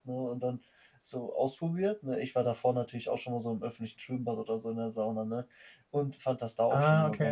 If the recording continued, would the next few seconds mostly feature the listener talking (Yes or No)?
No